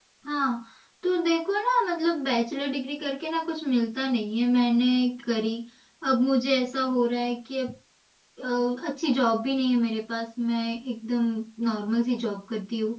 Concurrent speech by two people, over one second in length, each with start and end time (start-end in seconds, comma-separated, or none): none